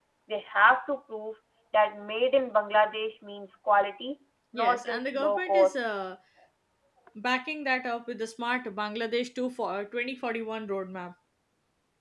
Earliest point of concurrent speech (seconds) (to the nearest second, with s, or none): 5 s